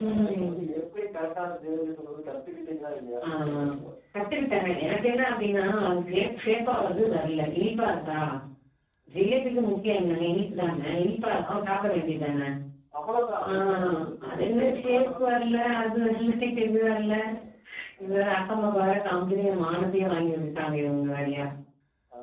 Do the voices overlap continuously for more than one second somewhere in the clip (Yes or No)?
Yes